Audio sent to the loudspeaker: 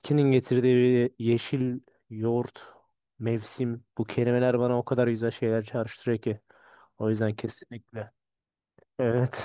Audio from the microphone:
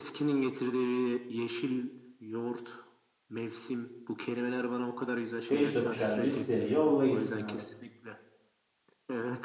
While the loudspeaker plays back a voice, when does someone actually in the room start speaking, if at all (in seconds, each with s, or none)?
5.5 s